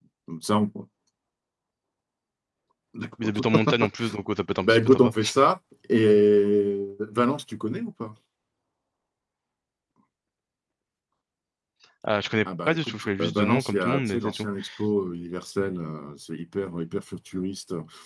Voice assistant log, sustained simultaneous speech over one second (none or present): present